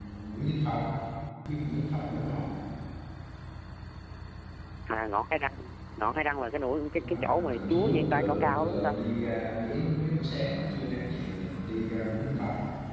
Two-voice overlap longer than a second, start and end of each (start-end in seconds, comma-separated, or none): 6.9-8.9